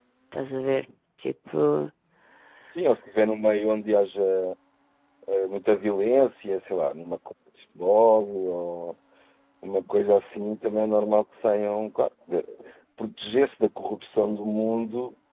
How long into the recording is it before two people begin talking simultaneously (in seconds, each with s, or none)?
none